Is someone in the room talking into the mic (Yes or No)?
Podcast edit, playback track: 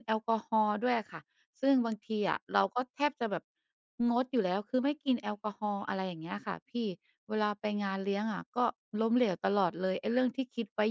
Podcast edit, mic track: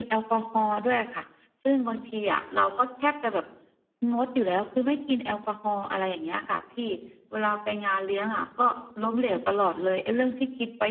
No